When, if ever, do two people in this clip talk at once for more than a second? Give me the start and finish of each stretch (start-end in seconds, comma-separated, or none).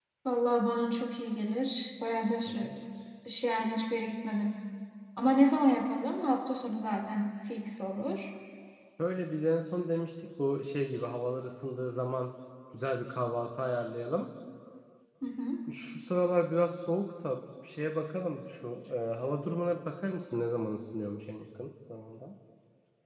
none